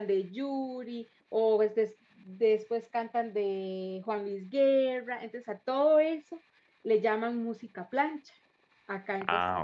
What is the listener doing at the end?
listening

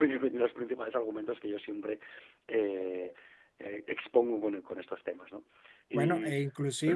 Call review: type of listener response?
taking over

